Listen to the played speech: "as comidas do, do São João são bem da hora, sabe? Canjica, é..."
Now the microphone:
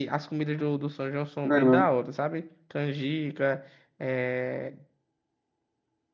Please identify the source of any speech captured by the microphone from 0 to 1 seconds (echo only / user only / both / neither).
echo only